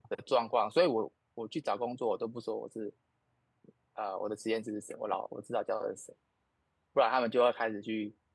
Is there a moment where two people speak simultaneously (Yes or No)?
No